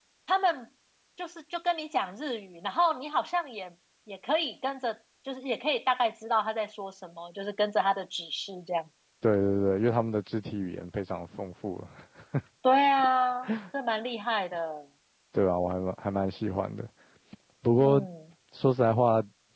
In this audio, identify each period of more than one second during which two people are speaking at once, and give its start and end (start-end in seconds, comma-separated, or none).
none